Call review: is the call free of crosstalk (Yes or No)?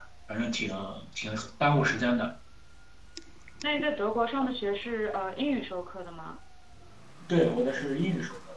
Yes